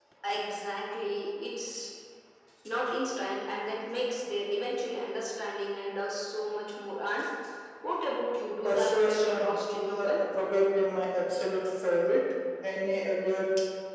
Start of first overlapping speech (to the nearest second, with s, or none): 9 s